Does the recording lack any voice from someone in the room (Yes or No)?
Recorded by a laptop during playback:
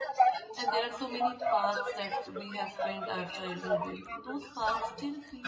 No